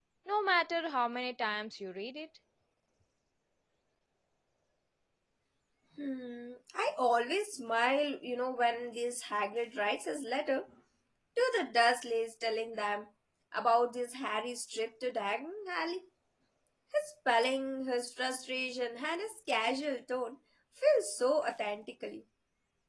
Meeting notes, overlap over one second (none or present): none